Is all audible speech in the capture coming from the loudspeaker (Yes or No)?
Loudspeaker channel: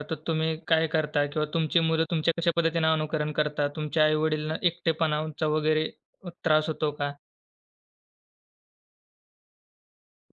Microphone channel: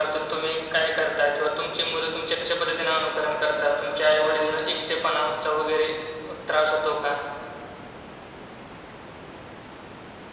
Yes